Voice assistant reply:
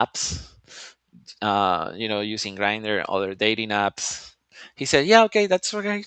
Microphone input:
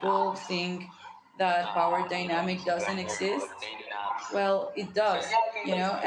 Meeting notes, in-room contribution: present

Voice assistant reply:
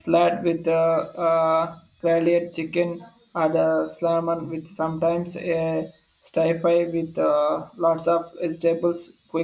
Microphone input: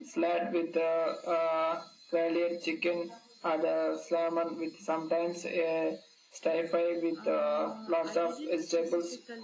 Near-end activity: present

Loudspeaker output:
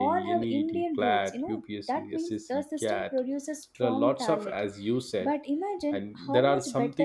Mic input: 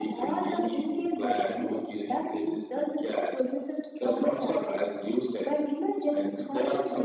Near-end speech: present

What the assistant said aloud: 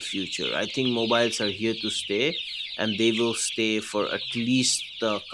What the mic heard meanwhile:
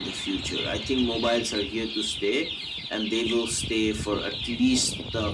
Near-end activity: none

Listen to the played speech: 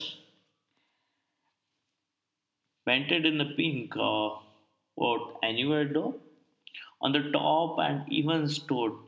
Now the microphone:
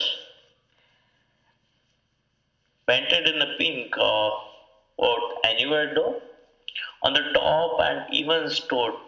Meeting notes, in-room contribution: none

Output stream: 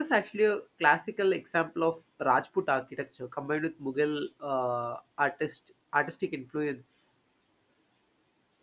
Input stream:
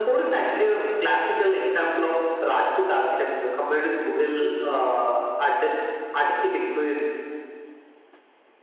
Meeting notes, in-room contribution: none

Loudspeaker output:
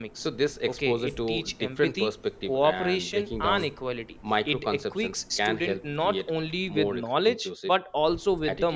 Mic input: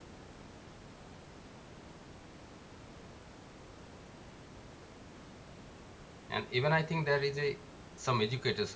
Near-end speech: present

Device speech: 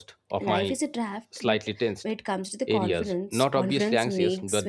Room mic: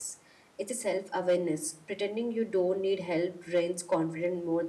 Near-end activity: present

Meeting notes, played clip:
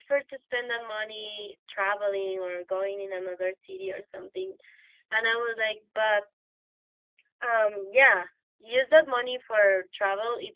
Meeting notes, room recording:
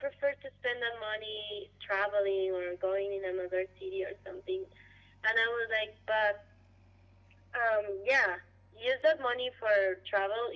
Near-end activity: none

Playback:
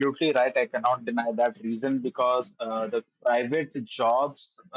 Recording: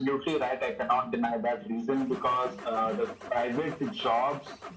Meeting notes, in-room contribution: none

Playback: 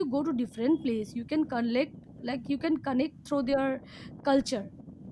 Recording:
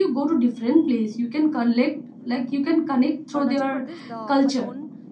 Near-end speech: present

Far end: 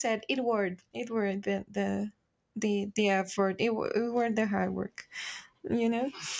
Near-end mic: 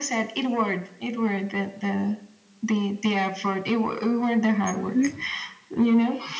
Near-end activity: present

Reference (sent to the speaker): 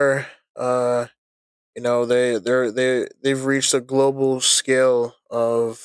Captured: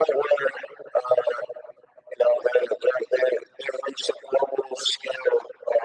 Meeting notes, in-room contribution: none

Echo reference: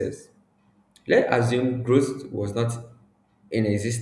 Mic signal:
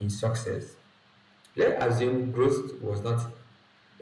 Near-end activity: none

